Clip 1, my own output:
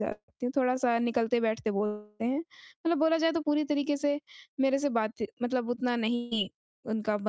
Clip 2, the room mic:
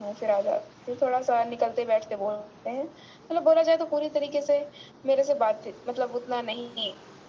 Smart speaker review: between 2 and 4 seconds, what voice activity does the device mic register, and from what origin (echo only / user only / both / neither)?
echo only